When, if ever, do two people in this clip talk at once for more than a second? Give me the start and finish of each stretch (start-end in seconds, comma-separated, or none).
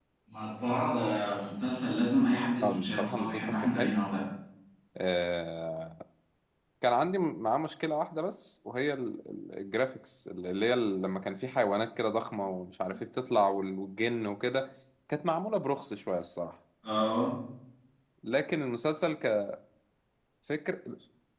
2.6-3.9